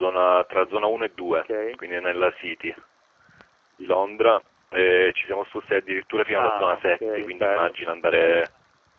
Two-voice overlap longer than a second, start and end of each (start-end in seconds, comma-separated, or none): 6.3-7.7